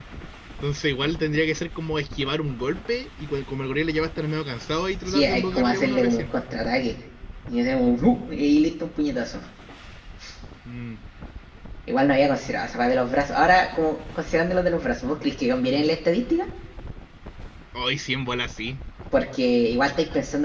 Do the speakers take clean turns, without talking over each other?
No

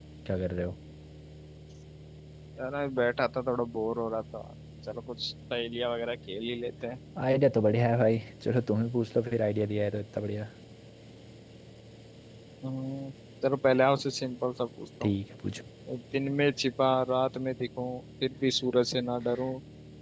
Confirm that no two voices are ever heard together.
Yes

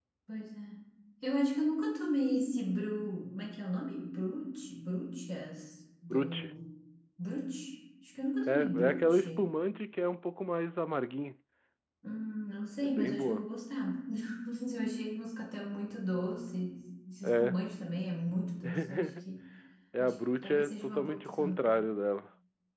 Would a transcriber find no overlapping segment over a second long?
No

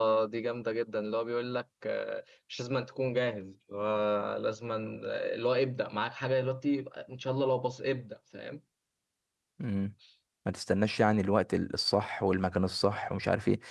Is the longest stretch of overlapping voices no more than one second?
Yes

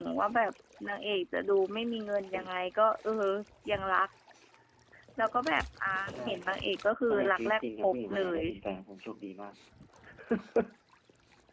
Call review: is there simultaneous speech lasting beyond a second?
Yes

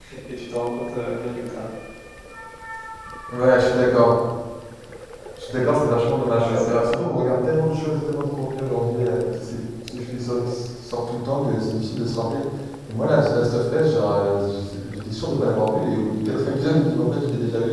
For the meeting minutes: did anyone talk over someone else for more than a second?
No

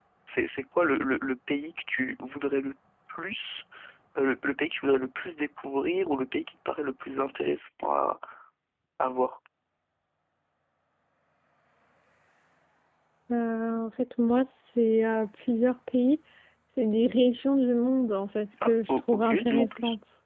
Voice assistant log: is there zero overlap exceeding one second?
No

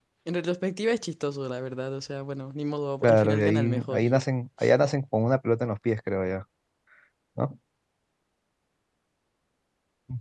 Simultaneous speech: Yes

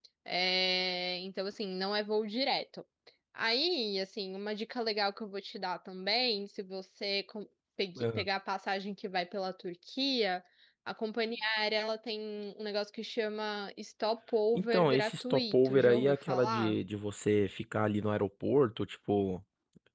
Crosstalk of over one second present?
Yes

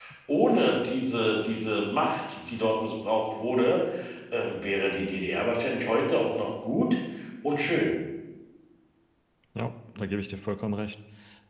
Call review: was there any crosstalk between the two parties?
No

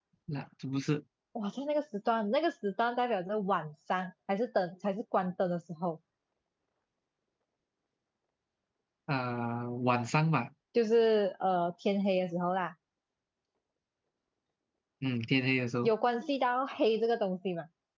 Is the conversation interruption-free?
Yes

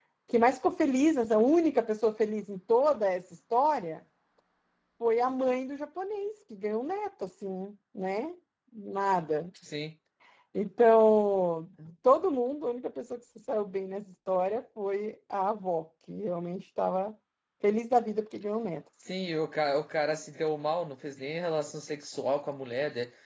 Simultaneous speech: No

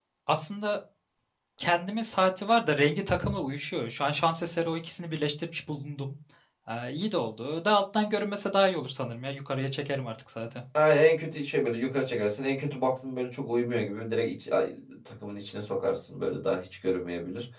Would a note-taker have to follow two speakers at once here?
No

